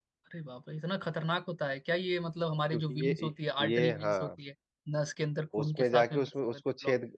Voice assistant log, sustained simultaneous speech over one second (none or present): present